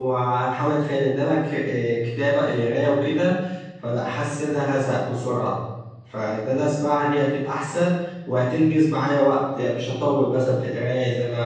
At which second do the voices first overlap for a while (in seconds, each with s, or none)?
none